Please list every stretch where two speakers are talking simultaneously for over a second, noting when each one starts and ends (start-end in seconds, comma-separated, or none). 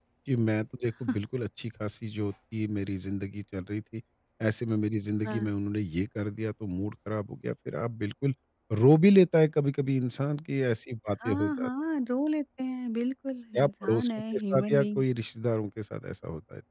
13.6-15.0